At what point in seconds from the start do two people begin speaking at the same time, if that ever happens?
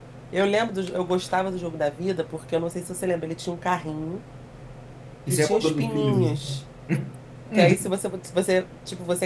5 s

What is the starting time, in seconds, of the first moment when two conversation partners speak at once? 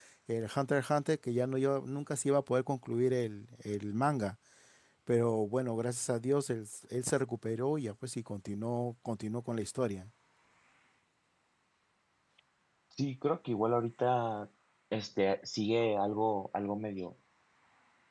none

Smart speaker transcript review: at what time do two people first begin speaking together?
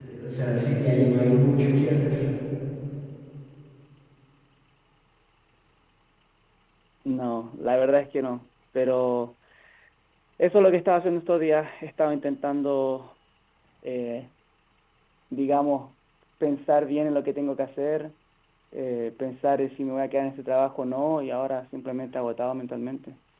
none

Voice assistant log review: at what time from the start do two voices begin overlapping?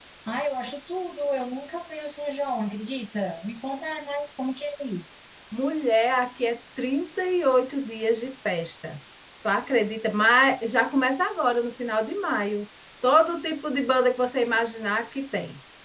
none

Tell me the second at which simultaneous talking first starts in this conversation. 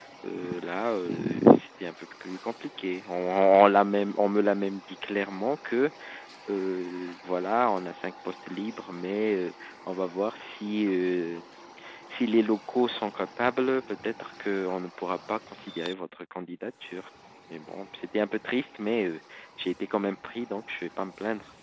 none

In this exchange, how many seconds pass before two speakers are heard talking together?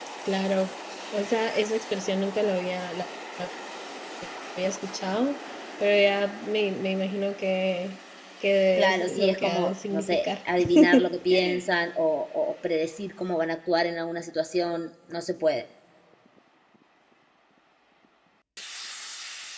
9 s

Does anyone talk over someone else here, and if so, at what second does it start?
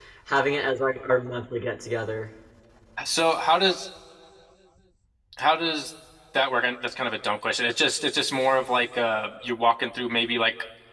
none

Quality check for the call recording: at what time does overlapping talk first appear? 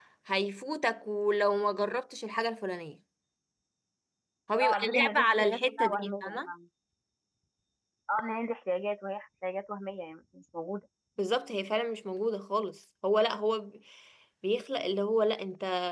5 s

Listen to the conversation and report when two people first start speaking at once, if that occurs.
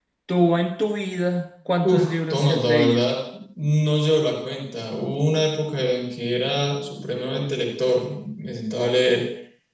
2 s

